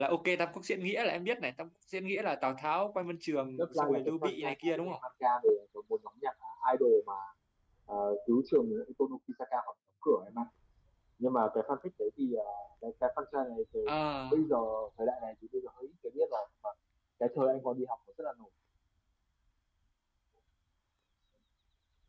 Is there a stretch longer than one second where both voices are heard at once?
Yes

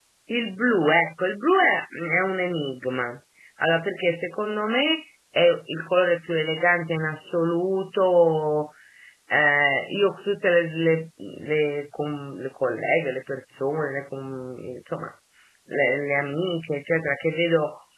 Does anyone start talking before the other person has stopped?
No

